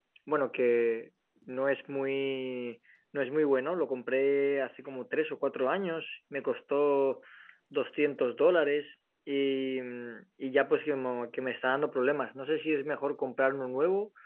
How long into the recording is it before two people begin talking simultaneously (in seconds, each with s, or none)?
none